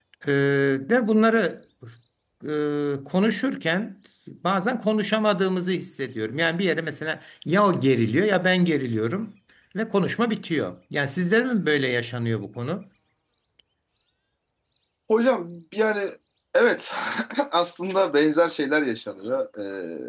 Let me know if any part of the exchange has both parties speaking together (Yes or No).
No